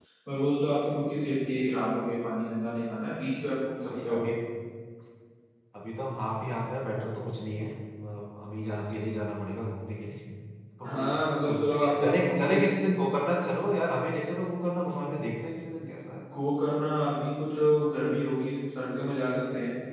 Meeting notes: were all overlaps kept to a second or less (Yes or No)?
No